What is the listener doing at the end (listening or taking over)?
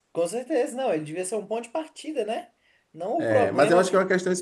taking over